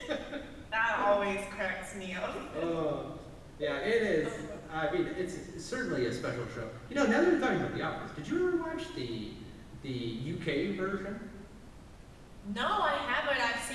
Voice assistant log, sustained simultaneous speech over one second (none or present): none